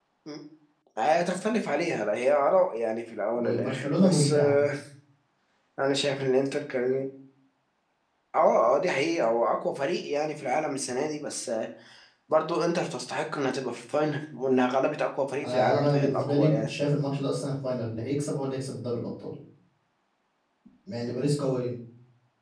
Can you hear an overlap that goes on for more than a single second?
Yes, from 3.4 s

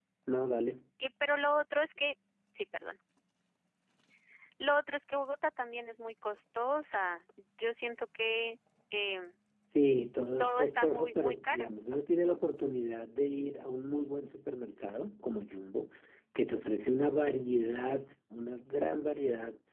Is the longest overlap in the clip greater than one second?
Yes, from 10.4 s

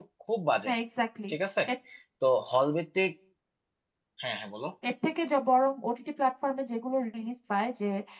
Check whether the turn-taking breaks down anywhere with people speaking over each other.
No

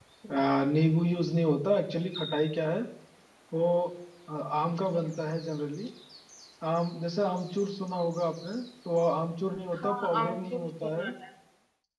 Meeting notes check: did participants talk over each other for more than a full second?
Yes, from 9.7 s

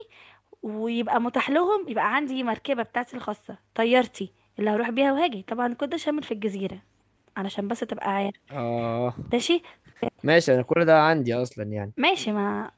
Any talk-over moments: No

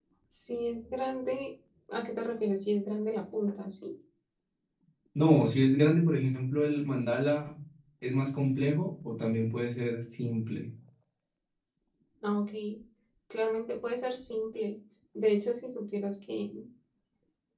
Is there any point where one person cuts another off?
No

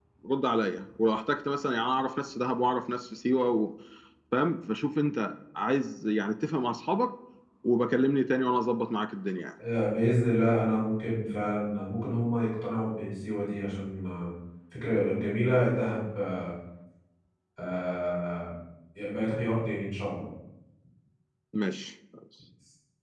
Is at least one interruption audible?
No

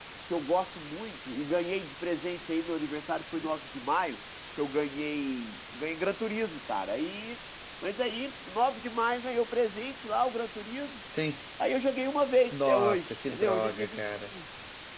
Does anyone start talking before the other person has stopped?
Yes, from 12.5 s

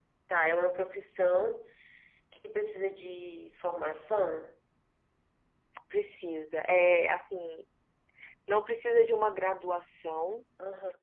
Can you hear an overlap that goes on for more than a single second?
No

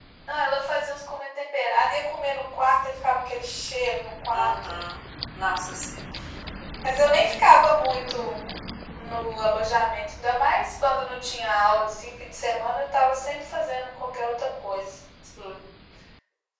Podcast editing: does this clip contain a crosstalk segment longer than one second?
No

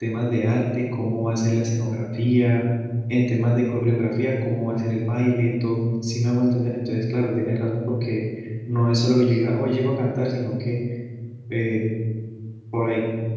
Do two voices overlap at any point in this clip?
No

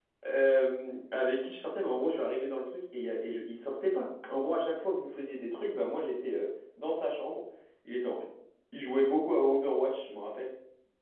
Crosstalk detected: No

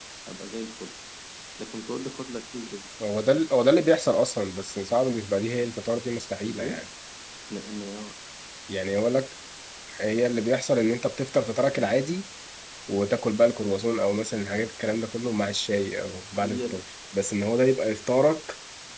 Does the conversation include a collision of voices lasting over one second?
No

